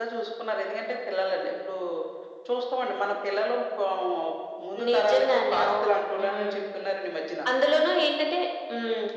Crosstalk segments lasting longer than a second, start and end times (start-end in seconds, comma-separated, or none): 4.9-6.6